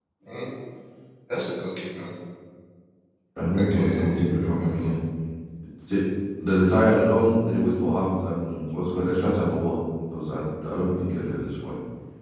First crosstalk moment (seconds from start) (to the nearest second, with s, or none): 4 s